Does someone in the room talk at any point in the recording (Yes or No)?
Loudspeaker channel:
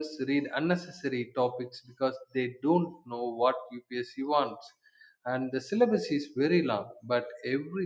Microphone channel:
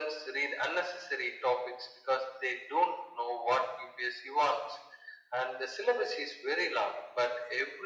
No